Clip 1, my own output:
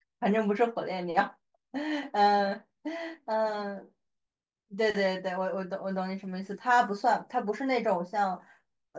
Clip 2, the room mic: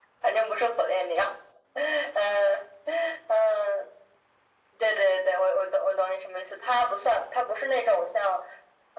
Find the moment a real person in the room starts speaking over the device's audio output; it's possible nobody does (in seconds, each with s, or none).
none